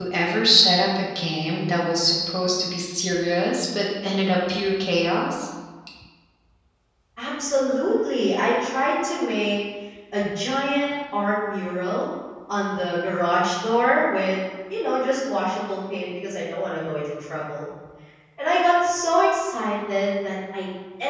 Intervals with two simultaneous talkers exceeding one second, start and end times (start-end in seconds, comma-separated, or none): none